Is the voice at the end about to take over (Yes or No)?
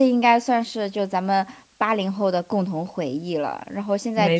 No